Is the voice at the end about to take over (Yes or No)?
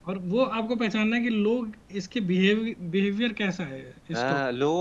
Yes